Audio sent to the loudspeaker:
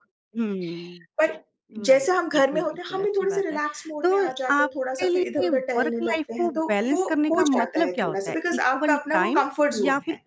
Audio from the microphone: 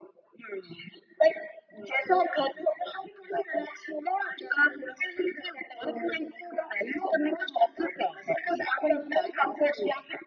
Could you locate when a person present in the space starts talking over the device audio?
none

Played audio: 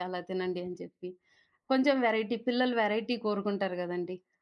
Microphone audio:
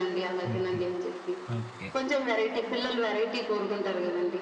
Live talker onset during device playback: 0.5 s

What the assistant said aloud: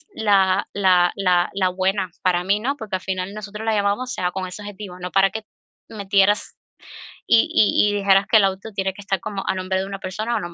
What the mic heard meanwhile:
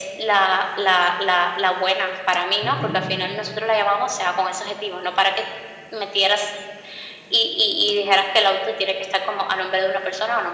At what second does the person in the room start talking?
2.6 s

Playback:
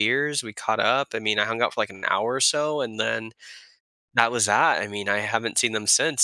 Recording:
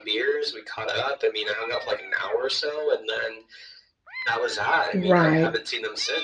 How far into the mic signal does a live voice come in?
4.9 s

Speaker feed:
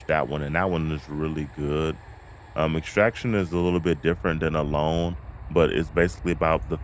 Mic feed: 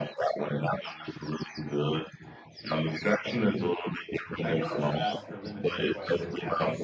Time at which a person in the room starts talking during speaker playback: 4.4 s

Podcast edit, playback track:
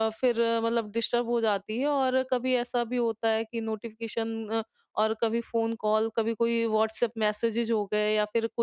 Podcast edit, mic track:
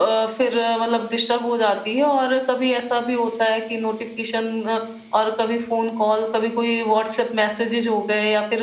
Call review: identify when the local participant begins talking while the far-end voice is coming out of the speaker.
none

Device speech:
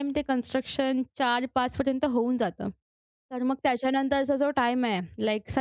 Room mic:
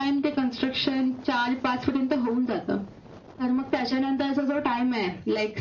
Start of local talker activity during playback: none

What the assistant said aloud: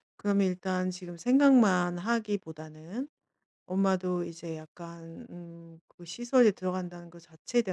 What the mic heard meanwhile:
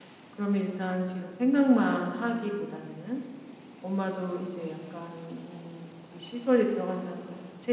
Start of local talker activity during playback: none

